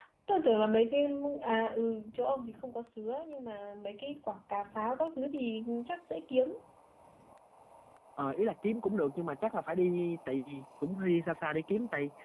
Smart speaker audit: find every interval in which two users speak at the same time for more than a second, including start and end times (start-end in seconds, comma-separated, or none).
none